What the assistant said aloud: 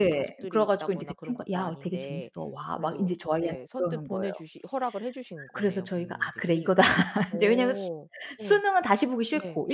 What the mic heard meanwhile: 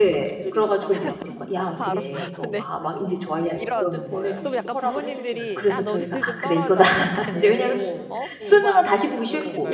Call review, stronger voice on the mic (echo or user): echo